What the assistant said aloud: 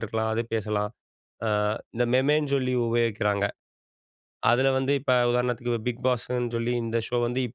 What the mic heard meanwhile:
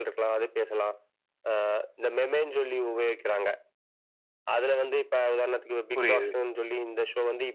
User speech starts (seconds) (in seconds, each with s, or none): 6.0 s